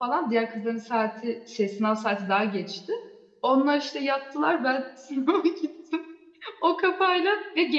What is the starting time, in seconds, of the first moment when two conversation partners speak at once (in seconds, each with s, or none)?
none